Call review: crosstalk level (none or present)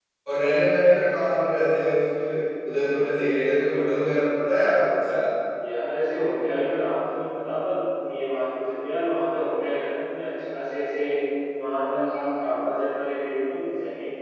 none